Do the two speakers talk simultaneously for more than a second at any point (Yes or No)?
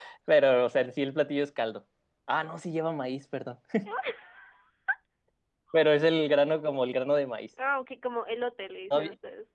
No